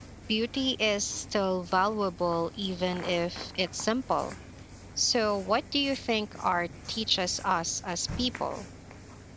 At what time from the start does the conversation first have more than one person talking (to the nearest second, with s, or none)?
none